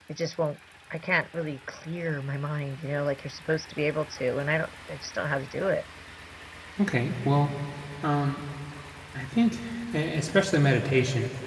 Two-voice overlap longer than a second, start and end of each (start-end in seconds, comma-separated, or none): none